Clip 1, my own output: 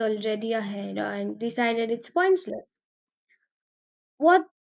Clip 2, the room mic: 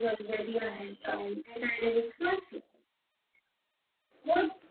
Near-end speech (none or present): none